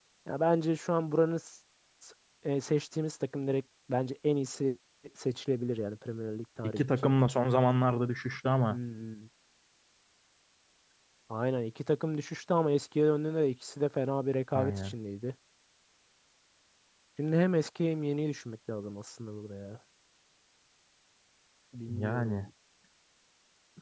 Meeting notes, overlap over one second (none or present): none